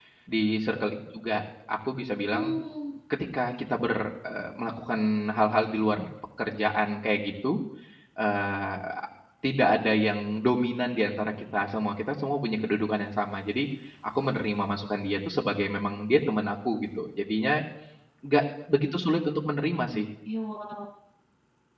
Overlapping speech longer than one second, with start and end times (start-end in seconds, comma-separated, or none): none